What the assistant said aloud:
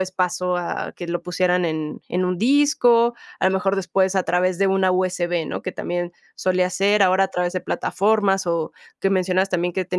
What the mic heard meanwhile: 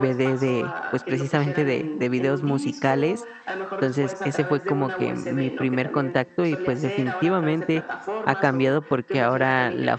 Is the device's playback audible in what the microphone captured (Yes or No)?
Yes